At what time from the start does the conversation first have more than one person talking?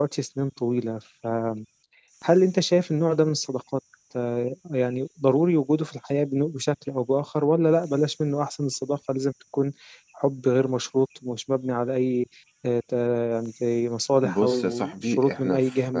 14.2 s

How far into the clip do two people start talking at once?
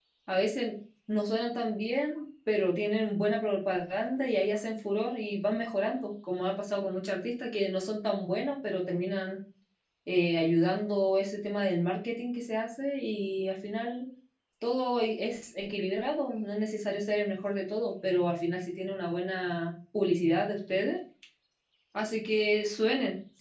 none

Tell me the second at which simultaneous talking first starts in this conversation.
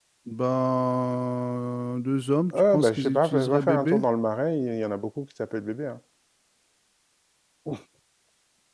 2.5 s

